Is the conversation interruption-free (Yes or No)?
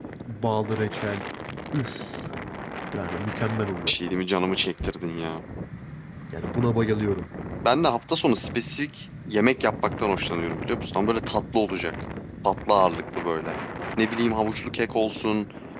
Yes